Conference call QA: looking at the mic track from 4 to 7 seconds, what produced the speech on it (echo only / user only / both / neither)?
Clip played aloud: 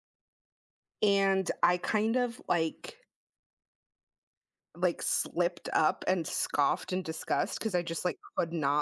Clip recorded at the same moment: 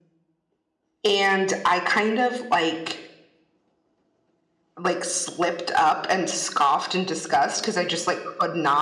echo only